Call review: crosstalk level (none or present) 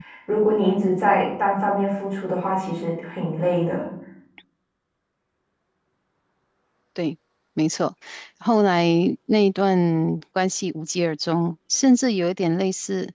none